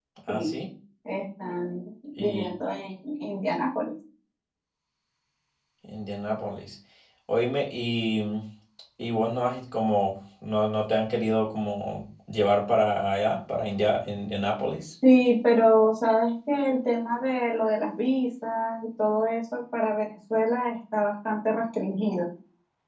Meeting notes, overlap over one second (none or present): none